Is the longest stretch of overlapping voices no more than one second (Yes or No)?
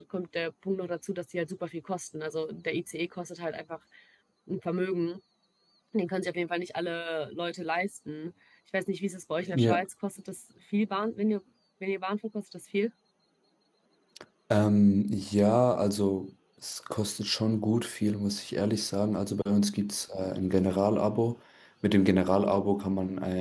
Yes